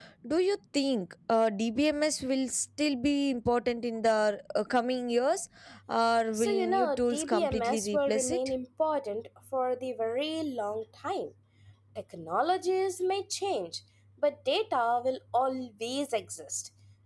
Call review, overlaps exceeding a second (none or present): present